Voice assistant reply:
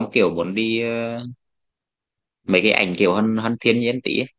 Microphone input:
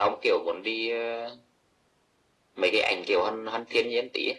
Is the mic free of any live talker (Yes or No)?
Yes